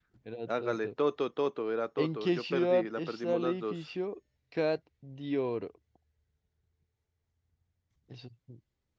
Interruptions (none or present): present